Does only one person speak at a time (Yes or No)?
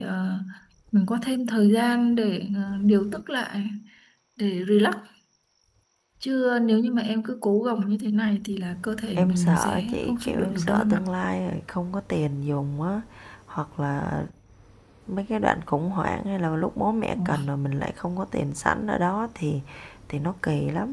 No